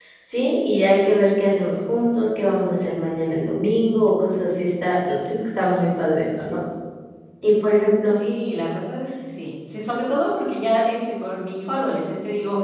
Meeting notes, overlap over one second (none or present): none